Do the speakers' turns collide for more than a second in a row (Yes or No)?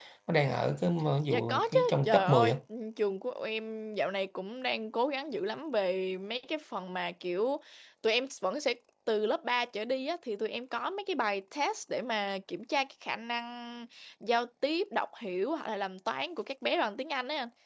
Yes